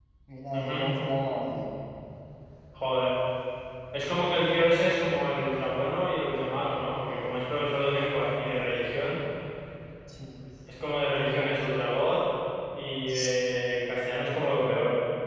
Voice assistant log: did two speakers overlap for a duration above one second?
No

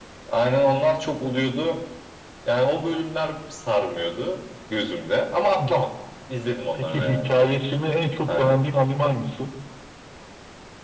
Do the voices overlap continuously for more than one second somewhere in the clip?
No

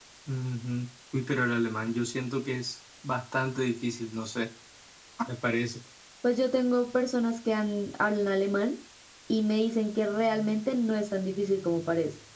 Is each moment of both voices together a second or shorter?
Yes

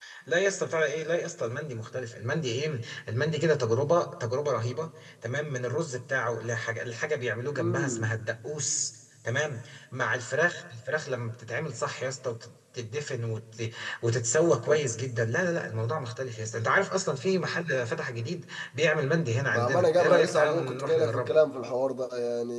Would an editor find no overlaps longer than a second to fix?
No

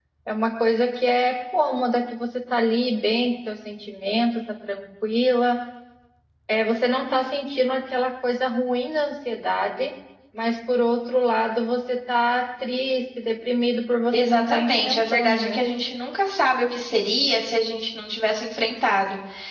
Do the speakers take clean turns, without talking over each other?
No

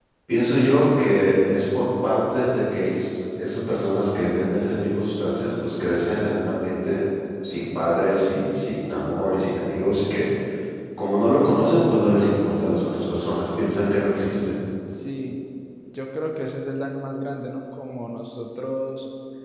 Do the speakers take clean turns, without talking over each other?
Yes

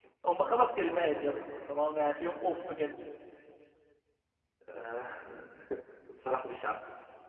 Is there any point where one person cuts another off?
No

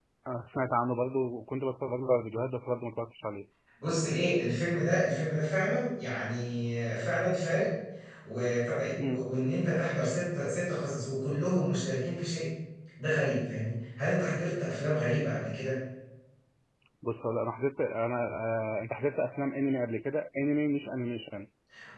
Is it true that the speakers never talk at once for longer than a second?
Yes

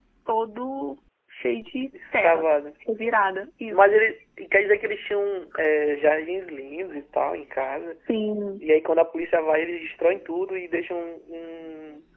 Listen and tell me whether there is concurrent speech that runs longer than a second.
No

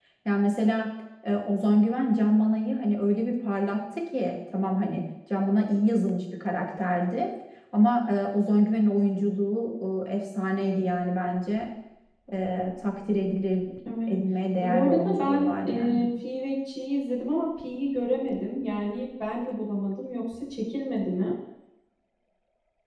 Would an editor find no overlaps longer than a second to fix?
No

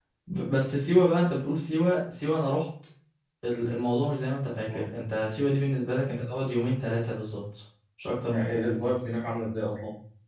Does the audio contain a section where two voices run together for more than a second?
No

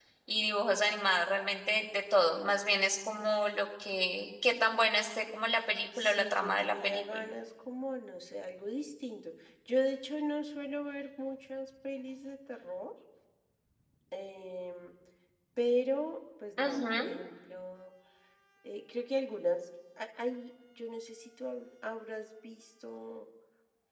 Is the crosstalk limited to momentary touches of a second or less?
No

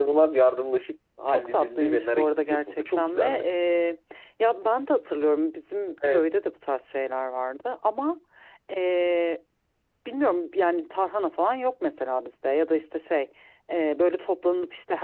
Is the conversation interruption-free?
No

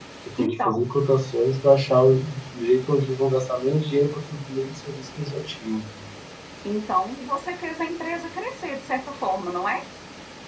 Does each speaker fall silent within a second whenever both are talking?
Yes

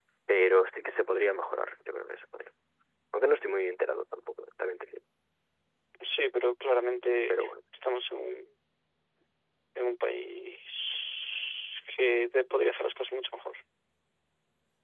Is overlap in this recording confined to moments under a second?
Yes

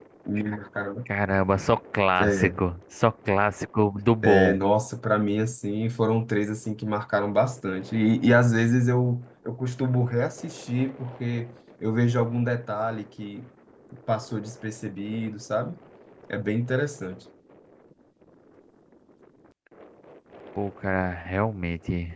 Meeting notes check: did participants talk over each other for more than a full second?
No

